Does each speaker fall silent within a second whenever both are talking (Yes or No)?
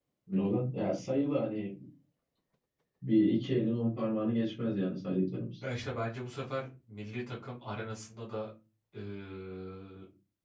Yes